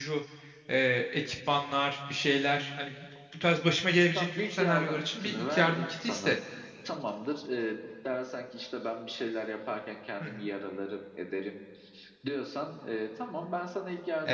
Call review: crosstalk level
present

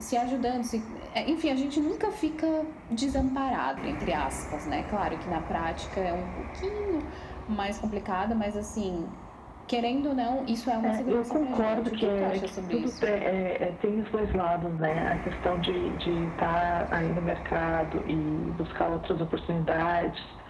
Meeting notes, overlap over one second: present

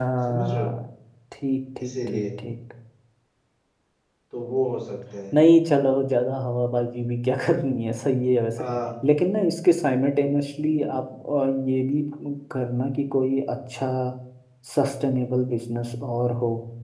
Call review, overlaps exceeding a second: none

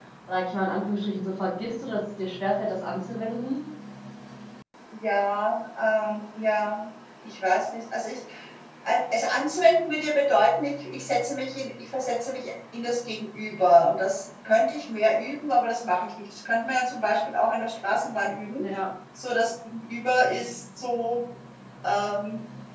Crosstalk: none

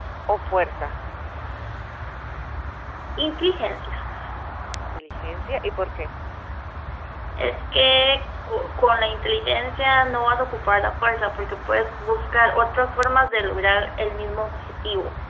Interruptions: none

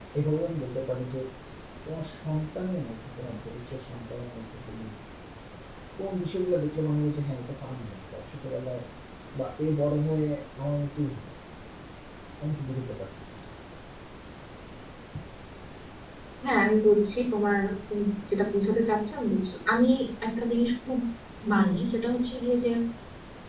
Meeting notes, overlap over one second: none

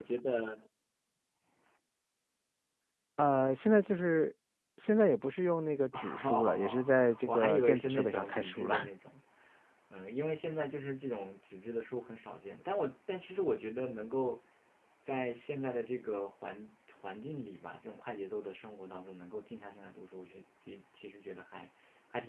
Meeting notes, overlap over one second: present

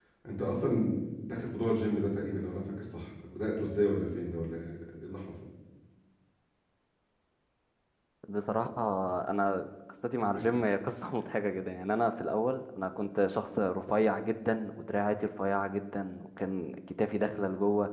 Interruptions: none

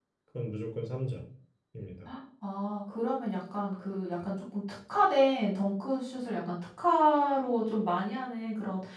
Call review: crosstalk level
none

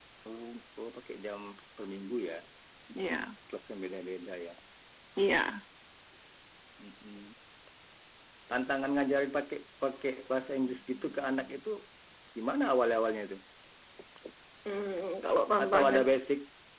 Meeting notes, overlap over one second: none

